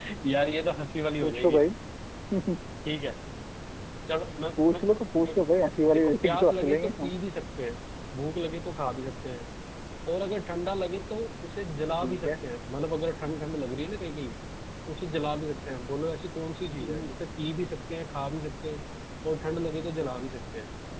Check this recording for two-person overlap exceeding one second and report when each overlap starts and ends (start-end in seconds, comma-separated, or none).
5.9-7.2